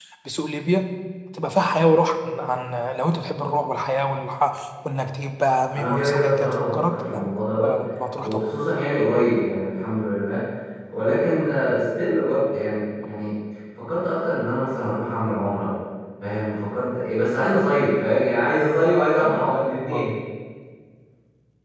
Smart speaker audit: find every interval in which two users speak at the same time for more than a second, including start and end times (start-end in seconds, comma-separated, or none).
5.8-7.2